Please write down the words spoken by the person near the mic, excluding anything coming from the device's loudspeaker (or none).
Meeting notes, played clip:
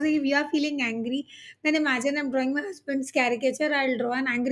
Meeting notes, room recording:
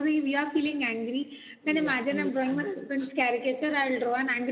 Yeah, understandable.